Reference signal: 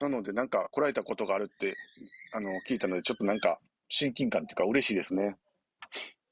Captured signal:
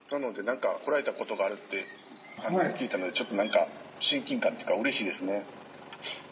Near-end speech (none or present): present